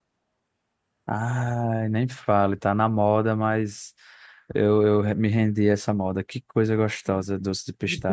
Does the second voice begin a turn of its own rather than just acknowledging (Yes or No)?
Yes